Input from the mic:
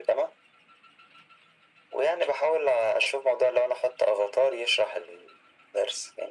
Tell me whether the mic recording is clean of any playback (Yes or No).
No